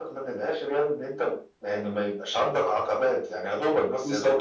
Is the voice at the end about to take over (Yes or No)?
Yes